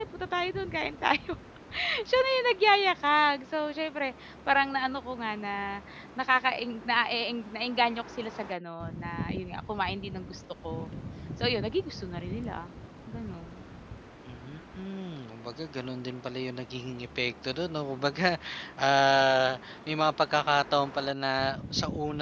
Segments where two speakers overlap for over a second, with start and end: none

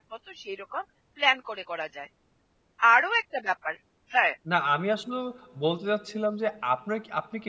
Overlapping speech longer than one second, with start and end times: none

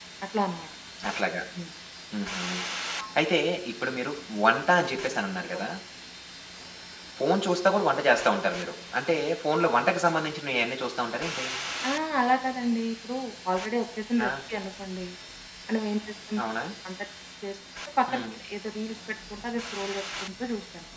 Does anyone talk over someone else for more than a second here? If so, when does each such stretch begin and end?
none

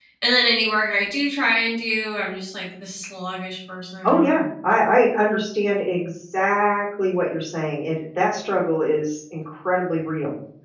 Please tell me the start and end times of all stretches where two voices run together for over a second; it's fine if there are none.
none

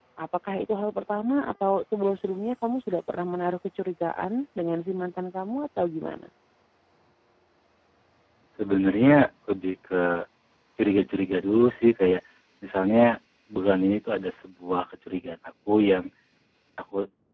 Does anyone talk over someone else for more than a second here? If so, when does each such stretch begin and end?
none

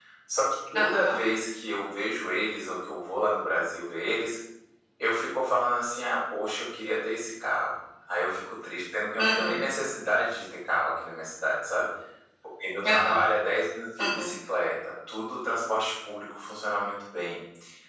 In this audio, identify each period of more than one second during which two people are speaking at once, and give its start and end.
none

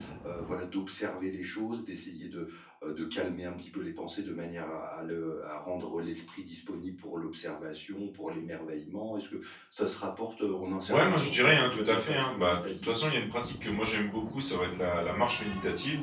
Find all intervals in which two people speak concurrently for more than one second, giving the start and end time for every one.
10.8-12.9

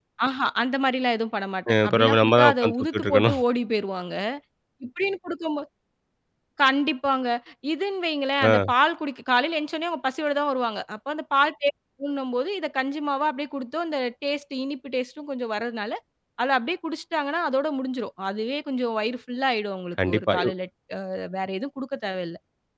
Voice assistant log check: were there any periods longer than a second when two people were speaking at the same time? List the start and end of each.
1.7-3.4

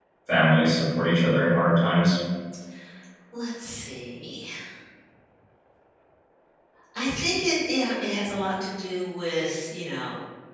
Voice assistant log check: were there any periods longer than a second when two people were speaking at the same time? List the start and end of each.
none

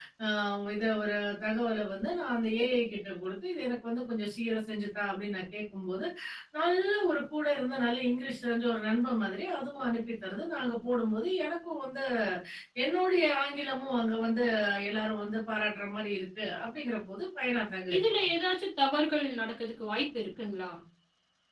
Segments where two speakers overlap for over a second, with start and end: none

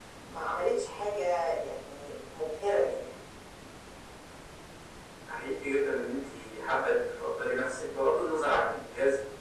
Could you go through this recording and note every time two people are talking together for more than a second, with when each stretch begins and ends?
none

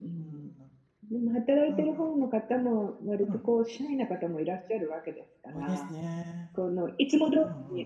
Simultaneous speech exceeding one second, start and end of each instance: none

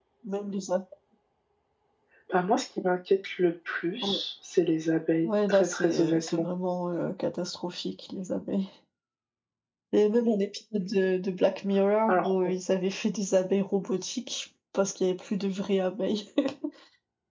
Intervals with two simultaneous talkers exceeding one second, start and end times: 5.2-6.5

